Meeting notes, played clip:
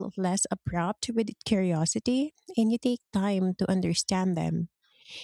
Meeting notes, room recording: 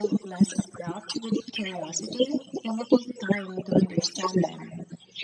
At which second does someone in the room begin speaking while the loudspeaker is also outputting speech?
none

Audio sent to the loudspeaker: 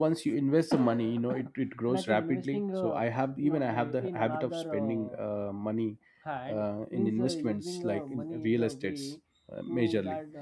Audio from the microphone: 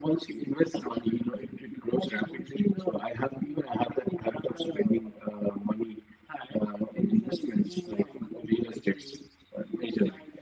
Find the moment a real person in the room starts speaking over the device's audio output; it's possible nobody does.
none

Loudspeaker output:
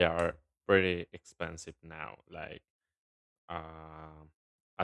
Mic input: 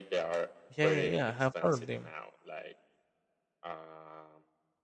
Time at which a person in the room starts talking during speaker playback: 0.8 s

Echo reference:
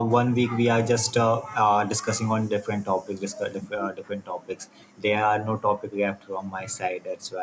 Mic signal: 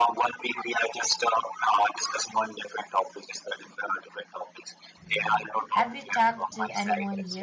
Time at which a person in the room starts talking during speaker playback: 5.0 s

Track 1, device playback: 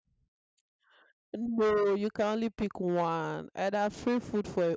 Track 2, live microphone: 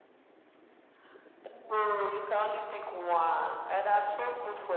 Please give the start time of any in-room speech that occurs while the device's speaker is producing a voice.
none

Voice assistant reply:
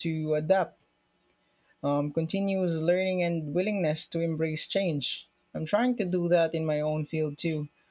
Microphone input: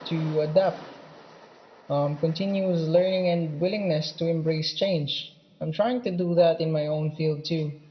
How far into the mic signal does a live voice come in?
none

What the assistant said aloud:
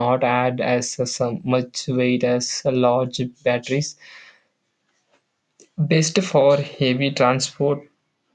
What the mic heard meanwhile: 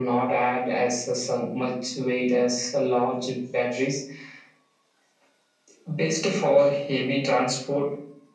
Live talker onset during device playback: none

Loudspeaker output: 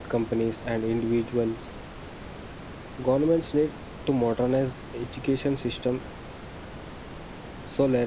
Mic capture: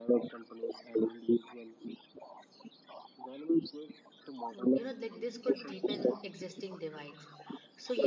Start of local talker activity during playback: 4.5 s

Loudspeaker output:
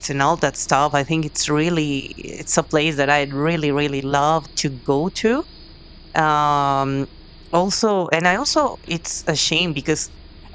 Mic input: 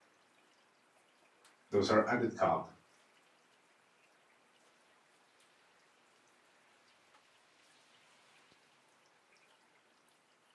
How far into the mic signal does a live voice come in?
1.7 s

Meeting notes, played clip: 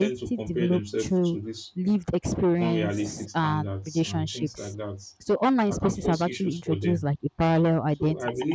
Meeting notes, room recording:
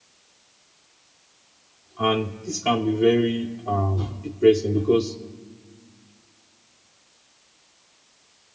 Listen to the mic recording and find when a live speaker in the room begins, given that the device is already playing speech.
2.0 s

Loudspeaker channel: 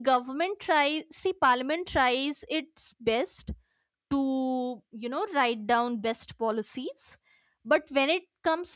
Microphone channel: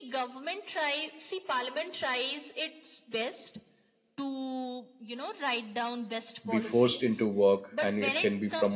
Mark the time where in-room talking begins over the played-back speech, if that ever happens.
6.5 s

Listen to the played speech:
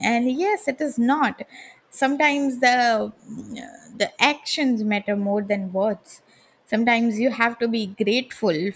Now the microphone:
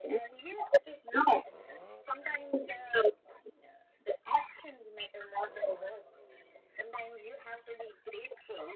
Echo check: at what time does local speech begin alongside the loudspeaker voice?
none

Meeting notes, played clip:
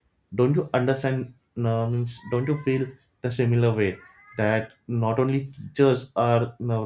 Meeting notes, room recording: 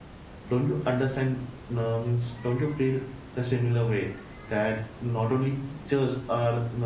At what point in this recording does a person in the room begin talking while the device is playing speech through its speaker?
none

